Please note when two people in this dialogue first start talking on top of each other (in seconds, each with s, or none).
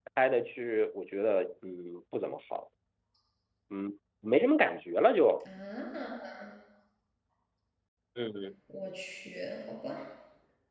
none